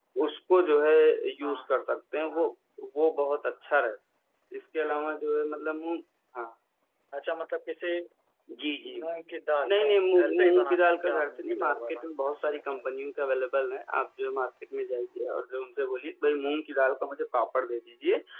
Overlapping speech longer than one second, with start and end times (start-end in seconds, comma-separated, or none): 9.7-12.8